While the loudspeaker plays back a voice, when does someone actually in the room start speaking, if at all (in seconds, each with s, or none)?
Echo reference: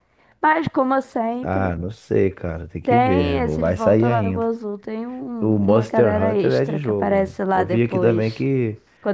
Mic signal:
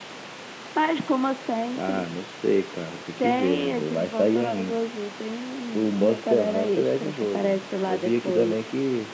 none